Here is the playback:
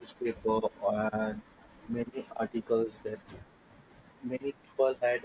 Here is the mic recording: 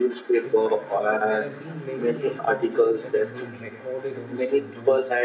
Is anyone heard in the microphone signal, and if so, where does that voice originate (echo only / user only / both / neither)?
both